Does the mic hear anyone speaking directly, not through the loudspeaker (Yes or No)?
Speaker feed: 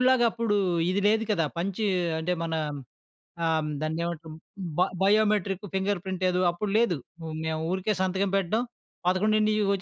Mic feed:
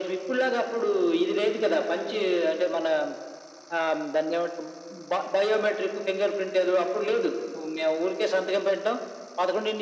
No